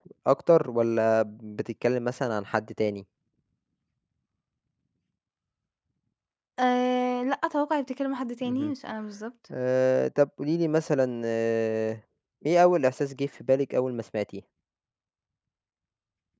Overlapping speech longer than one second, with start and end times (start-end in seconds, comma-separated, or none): none